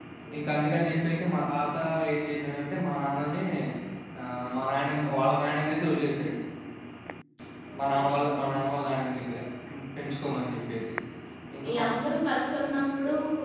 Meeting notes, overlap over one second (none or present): none